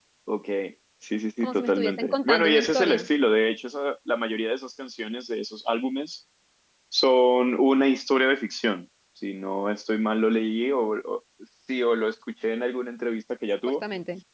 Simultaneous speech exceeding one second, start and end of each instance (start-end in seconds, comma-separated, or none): 1.4-3.1